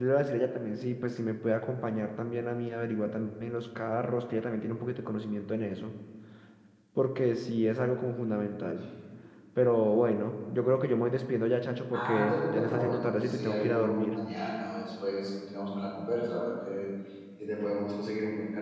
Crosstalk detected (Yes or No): Yes